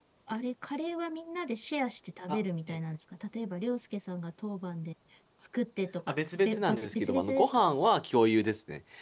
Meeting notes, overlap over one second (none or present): present